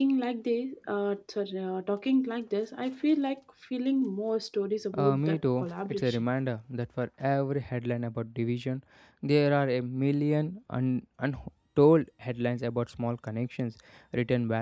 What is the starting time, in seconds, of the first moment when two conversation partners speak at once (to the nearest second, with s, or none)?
5 s